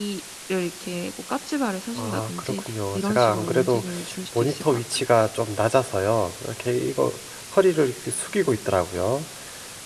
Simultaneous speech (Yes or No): Yes